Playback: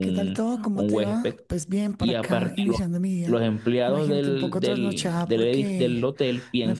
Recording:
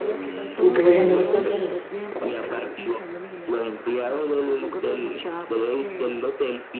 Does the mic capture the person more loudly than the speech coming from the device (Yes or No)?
Yes